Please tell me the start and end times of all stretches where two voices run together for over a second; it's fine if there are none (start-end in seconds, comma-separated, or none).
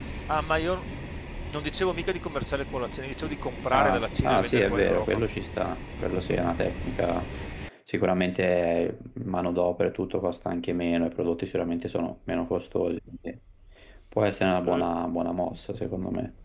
3.7-5.2